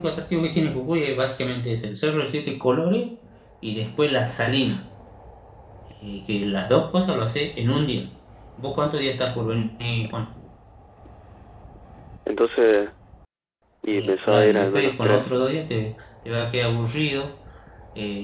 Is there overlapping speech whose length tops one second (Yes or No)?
Yes